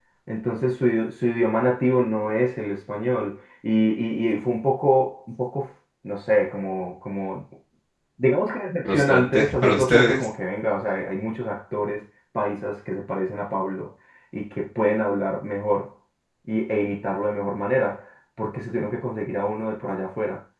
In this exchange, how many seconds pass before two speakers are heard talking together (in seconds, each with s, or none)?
8.8 s